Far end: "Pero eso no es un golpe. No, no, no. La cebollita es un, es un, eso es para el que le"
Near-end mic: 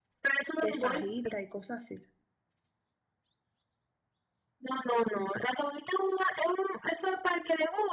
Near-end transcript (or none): de fajita y cosas así.